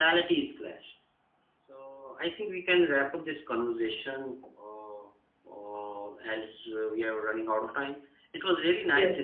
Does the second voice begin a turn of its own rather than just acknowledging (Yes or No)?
No